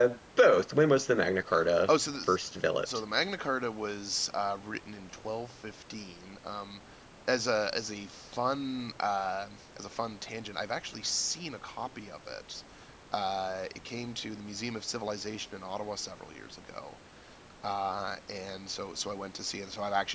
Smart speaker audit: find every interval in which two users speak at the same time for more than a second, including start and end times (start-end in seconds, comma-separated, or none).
none